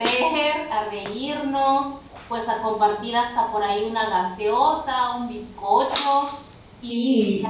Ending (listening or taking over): listening